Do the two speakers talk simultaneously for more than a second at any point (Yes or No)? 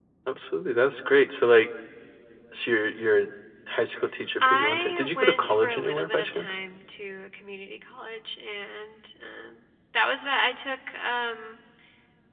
Yes